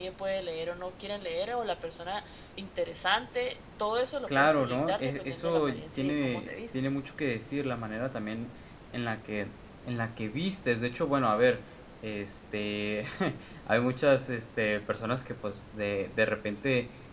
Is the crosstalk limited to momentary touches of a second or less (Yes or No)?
No